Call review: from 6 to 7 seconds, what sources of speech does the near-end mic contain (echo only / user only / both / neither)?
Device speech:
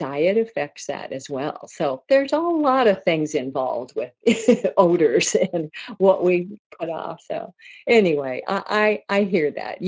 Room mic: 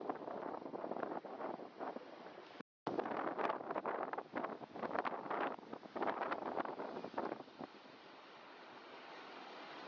neither